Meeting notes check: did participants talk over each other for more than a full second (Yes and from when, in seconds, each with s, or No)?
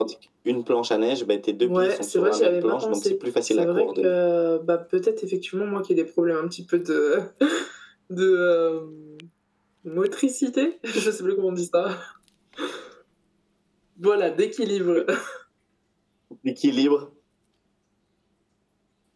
Yes, from 1.6 s